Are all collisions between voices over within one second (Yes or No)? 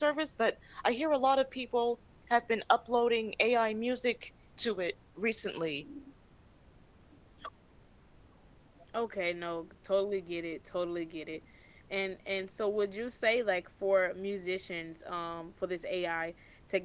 Yes